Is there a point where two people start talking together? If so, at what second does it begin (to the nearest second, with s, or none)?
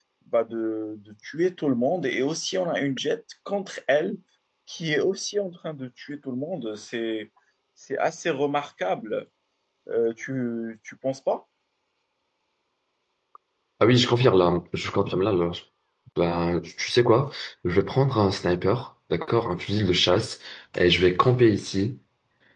none